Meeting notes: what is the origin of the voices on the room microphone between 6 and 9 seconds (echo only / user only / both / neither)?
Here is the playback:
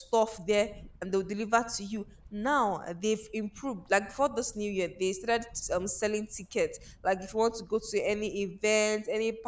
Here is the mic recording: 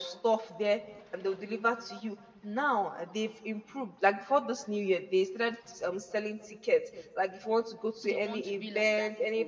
both